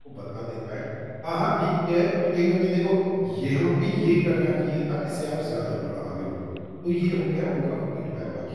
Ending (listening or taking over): listening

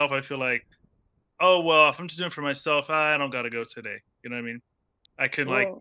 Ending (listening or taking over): listening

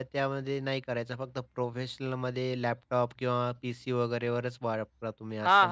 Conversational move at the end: taking over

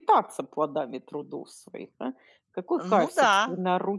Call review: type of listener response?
listening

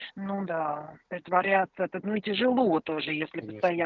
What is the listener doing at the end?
listening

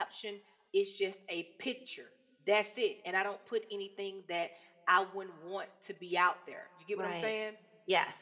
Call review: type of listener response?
taking over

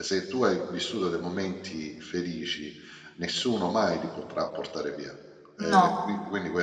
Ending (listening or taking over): listening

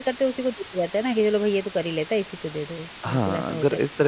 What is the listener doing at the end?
taking over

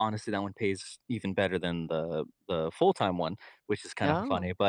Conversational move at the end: listening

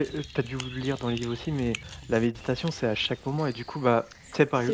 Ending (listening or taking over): listening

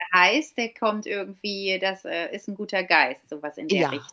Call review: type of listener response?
taking over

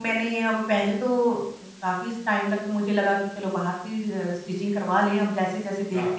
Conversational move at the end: listening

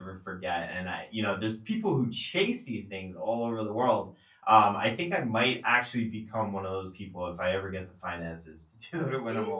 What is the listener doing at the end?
taking over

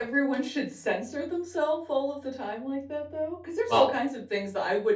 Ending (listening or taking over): listening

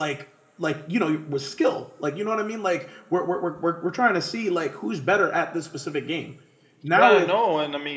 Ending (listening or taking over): taking over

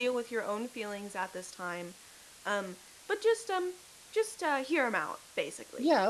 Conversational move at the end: taking over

